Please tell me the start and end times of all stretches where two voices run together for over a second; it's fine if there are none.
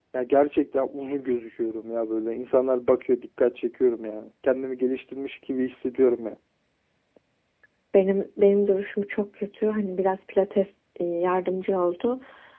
none

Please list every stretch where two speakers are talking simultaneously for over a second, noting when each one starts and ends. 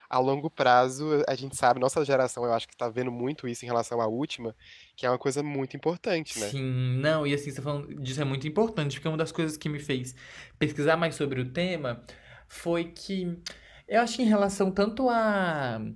none

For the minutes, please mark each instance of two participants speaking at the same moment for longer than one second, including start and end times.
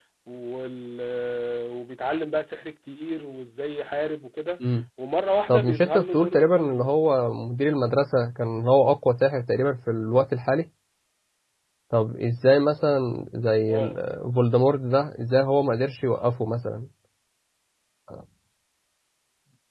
5.5-6.9

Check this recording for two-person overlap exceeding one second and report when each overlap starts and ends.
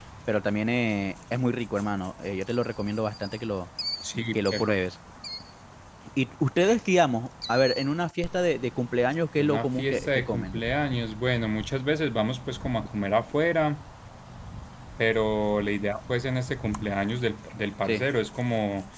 9.4-10.6

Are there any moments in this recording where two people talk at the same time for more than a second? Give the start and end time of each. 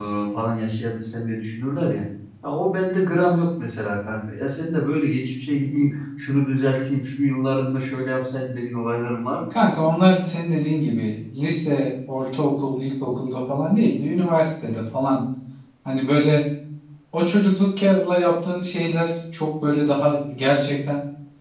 none

